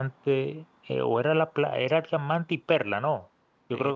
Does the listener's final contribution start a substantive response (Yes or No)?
Yes